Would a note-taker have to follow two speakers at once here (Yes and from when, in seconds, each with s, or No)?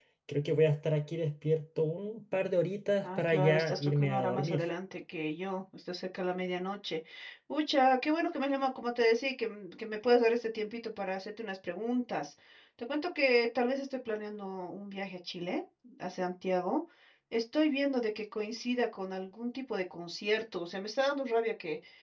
Yes, from 3.0 s